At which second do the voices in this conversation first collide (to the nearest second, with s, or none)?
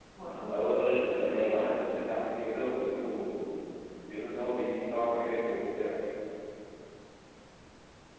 1 s